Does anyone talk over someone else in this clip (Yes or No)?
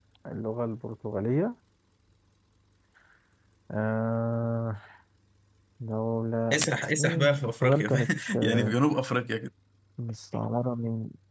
Yes